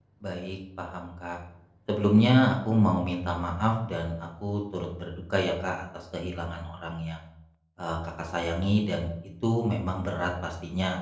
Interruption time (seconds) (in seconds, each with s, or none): none